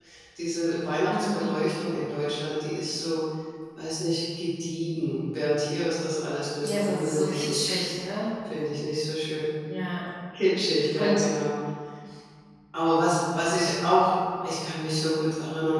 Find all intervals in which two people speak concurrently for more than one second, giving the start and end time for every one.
6.6-7.9

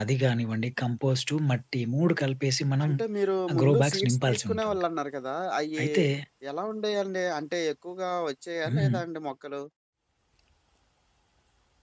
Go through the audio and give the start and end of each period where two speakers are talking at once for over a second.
3.5-4.8

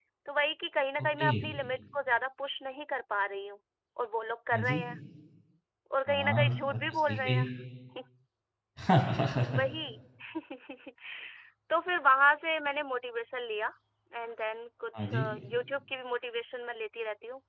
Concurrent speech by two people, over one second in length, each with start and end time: 6.1-7.4

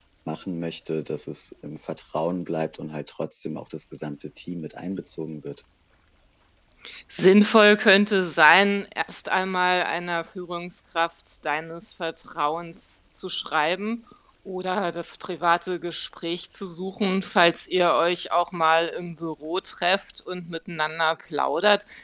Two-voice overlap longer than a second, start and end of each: none

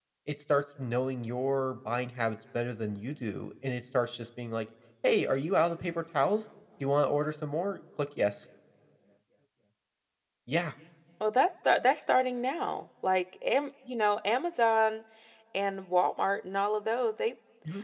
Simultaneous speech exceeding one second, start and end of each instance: none

